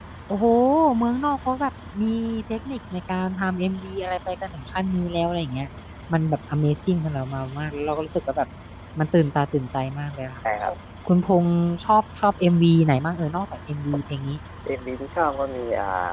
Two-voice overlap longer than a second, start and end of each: none

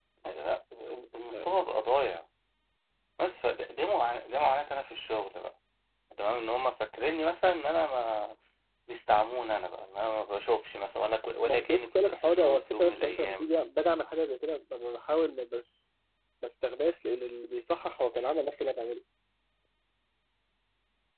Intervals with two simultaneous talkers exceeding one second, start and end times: 11.4-13.5

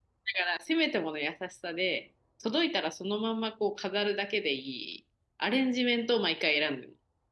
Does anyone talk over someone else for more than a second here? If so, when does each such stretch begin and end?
none

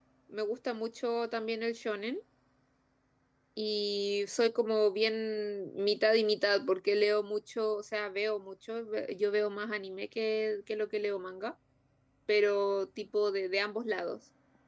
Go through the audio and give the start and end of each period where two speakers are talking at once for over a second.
none

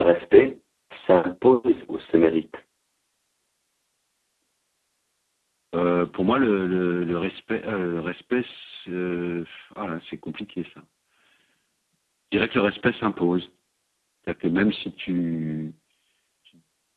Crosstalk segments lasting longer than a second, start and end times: none

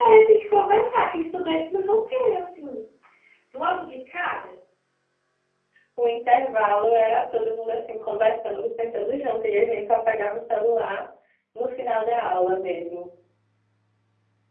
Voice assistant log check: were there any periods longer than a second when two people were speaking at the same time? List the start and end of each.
none

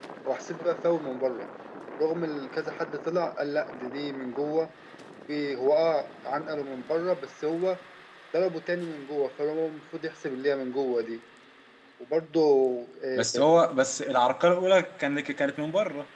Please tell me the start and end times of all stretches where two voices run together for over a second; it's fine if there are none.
none

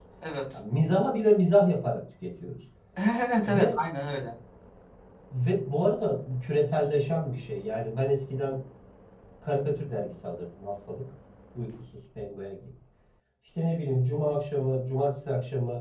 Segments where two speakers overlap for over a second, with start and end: none

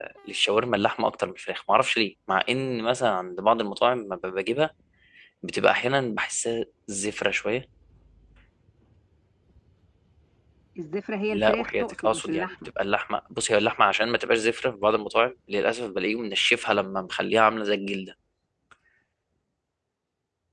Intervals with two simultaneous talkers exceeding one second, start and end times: 11.3-12.5

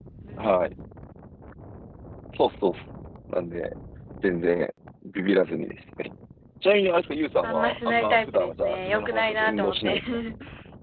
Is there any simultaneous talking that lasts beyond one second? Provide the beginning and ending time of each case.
7.4-10.0

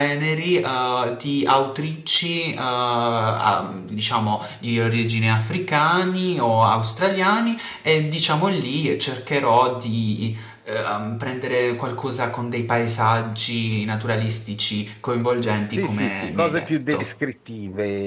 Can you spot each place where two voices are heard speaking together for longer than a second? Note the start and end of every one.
15.7-17.1

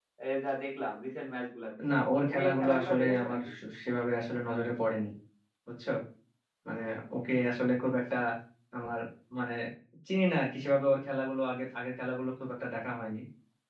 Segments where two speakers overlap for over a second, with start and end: 2.3-3.5

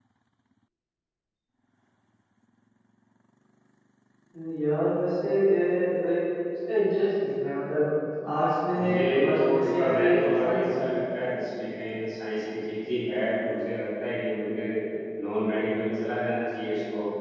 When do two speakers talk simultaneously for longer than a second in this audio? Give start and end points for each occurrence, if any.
8.8-10.9

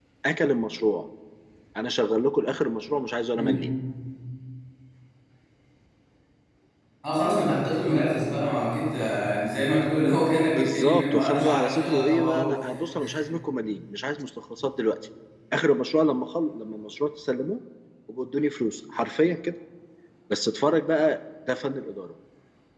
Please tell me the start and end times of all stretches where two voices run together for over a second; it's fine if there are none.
10.6-12.5

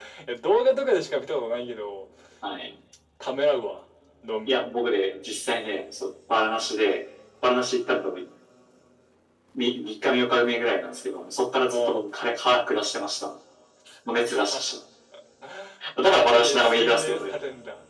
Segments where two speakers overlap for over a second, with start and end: 16.0-17.4

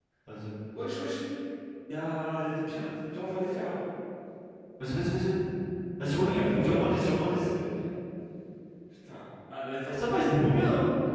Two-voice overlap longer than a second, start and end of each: 6.1-7.5

